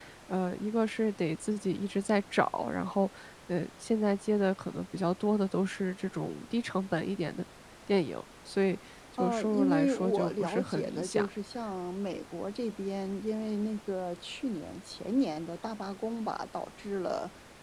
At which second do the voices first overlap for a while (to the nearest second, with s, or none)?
9 s